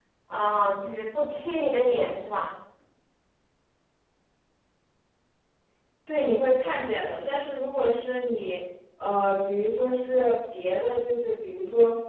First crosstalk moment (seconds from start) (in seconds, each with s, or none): none